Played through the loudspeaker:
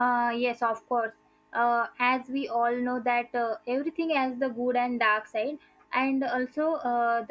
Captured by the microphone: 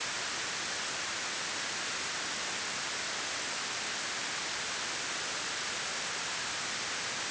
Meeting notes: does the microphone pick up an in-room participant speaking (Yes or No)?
No